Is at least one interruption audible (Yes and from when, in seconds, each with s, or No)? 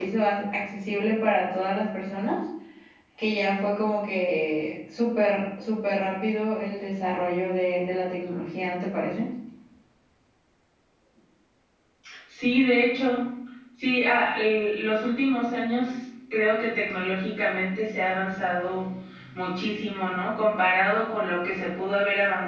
No